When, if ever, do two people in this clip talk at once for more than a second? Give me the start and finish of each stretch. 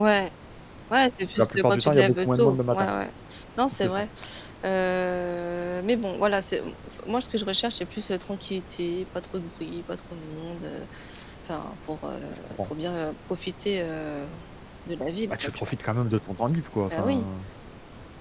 1.4-2.9

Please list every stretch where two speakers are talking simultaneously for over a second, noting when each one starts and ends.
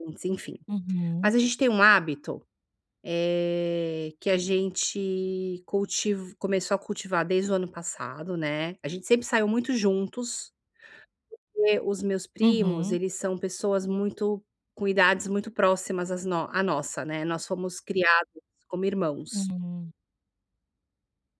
none

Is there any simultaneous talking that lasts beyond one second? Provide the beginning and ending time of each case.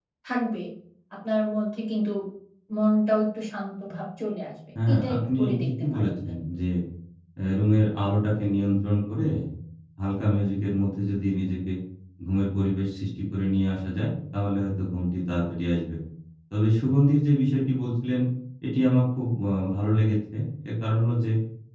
4.9-6.4

